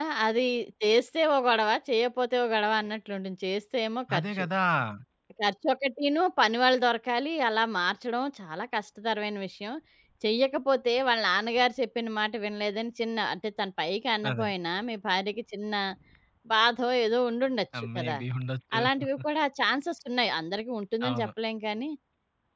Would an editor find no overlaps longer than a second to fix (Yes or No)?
Yes